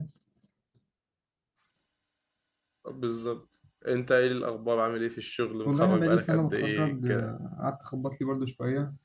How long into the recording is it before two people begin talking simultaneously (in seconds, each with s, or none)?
5.6 s